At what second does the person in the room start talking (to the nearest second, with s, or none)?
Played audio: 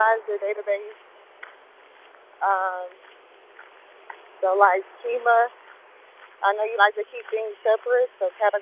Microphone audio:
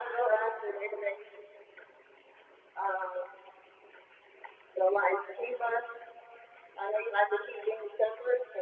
none